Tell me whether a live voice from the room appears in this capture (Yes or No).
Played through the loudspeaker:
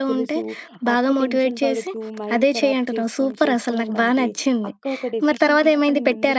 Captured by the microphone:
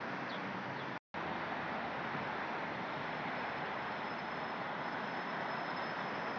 No